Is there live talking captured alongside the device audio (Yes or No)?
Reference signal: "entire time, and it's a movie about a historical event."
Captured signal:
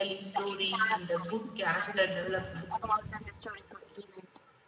Yes